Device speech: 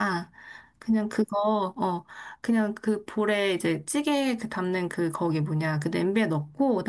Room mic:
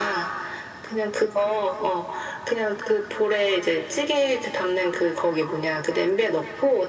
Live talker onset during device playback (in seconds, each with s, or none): none